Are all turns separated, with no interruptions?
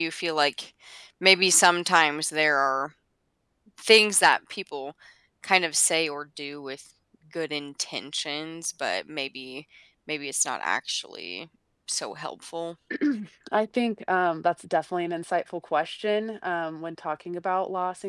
Yes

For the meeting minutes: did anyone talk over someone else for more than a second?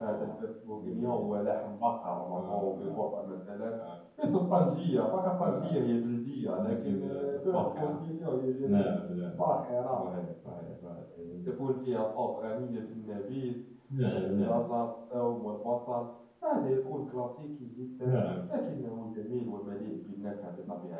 Yes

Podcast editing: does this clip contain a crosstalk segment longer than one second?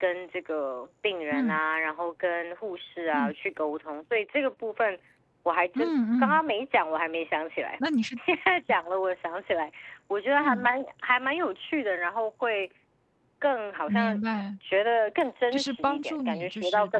Yes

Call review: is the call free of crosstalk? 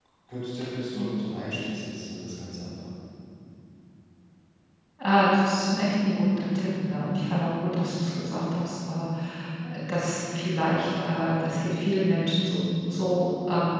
Yes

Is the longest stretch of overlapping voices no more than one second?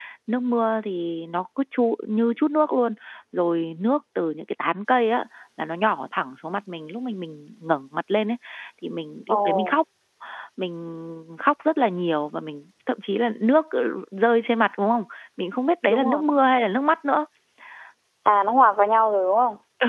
Yes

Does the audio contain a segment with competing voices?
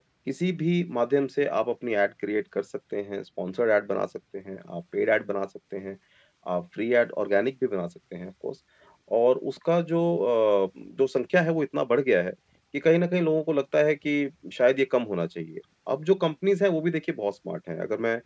No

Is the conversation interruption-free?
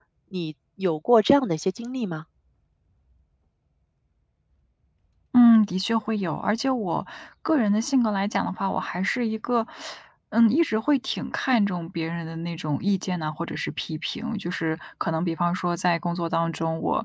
Yes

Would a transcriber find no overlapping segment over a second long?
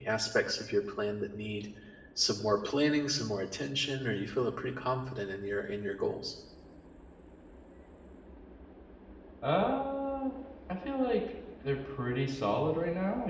Yes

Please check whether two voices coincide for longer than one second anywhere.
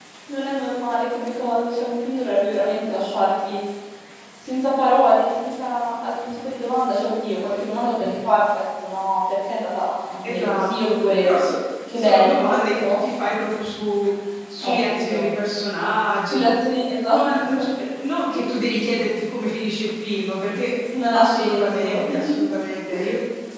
Yes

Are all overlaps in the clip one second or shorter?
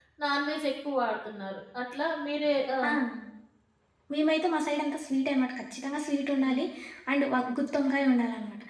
Yes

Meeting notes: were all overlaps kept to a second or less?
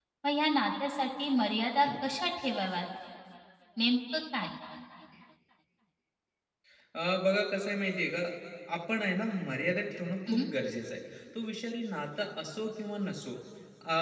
Yes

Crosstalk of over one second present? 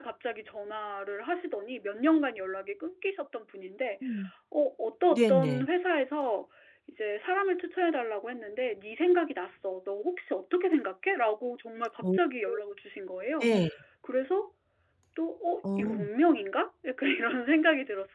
No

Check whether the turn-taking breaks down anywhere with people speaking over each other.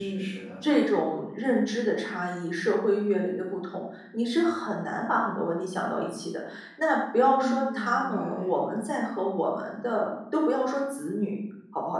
Yes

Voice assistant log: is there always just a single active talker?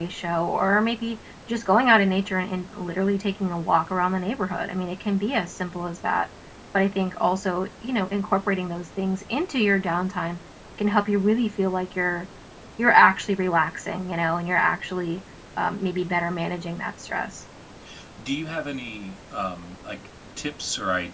Yes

